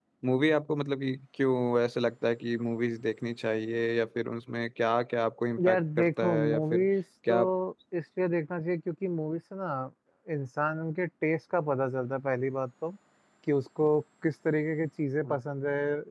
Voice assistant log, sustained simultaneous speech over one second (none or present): present